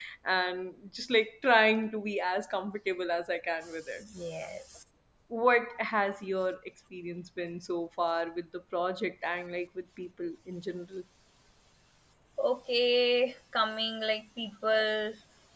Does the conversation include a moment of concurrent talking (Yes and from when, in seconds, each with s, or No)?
No